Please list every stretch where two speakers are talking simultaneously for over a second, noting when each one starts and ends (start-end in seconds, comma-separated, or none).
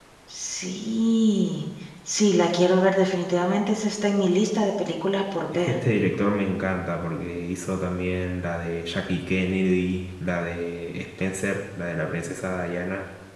none